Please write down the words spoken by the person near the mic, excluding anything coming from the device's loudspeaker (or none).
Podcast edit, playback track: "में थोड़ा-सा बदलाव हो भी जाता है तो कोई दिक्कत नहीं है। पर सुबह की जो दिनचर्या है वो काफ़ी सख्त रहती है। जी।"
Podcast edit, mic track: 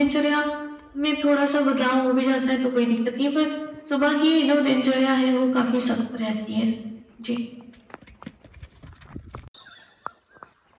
none